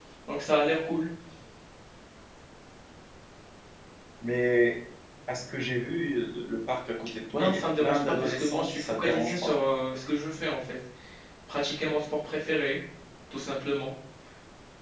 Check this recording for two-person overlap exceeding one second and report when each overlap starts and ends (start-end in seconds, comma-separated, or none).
7.3-9.5